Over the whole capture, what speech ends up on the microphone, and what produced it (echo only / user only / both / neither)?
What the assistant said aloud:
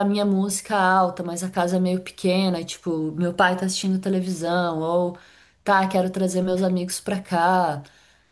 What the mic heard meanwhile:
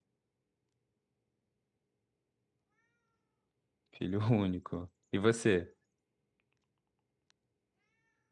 user only